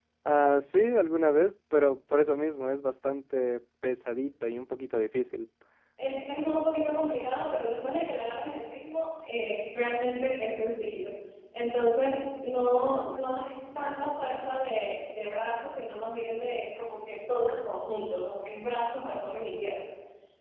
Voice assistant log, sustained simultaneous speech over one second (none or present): none